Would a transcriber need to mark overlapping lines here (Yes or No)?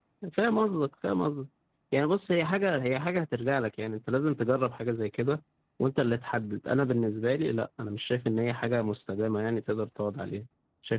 No